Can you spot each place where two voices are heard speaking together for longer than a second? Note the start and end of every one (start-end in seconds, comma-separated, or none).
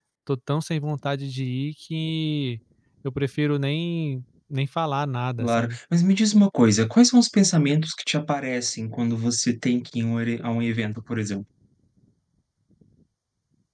none